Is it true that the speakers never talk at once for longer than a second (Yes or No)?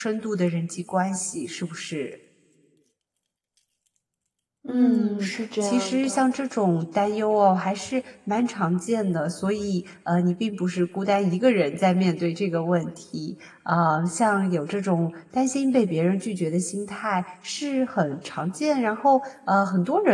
No